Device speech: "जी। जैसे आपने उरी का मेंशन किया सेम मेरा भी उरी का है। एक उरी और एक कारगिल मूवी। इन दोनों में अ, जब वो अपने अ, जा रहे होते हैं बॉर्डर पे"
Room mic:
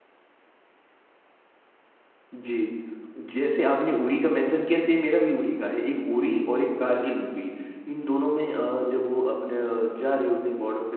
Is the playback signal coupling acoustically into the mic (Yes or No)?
Yes